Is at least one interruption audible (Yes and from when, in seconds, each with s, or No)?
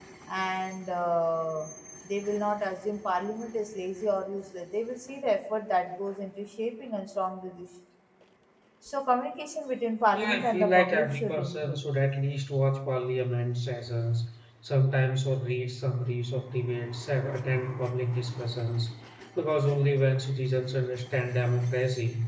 Yes, from 10.1 s